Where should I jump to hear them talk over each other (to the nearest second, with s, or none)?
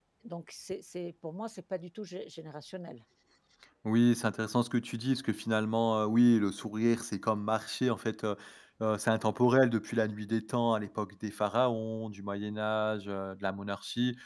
none